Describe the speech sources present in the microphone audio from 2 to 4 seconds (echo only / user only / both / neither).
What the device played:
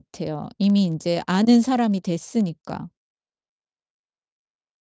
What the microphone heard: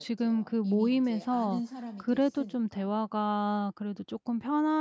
both